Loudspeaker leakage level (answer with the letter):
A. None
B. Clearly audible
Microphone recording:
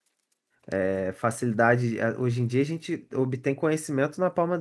A